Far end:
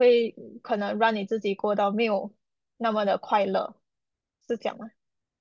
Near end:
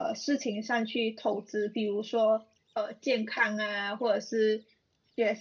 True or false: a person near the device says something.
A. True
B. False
A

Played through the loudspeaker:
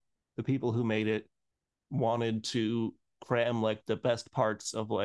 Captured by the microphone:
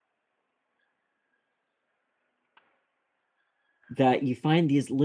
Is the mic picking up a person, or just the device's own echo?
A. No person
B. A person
B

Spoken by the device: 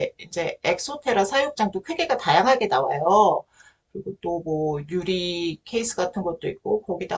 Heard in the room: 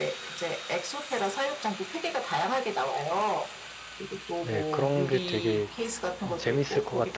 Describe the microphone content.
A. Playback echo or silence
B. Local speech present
B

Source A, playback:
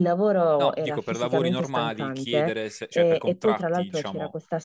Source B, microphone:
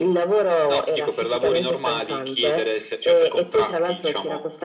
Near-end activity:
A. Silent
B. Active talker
A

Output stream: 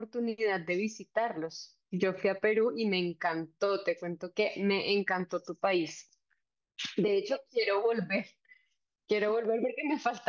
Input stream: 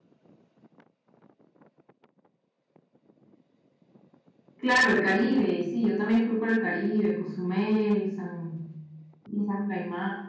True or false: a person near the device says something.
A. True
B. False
A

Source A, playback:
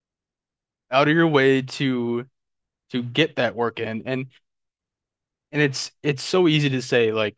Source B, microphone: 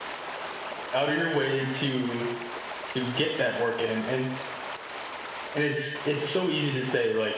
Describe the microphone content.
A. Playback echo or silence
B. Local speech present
A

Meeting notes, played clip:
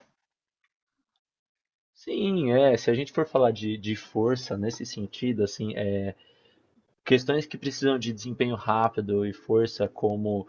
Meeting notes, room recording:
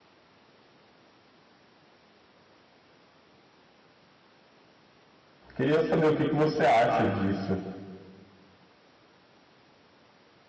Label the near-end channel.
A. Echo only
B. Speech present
B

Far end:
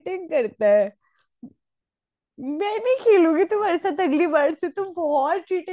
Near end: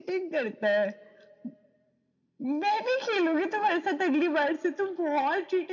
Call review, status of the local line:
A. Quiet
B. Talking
A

